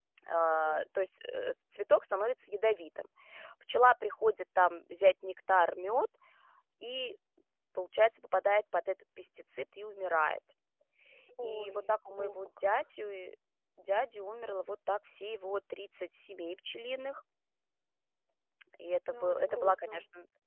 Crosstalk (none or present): present